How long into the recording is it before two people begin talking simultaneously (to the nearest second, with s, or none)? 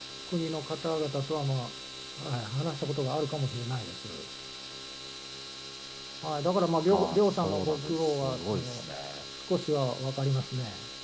7 s